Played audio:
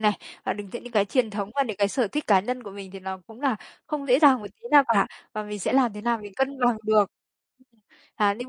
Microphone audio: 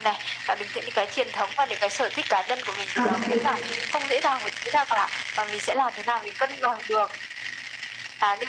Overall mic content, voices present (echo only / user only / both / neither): both